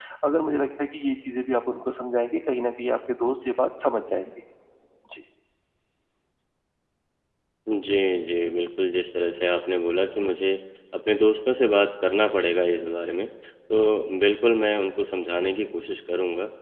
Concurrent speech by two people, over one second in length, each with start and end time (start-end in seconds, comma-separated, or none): none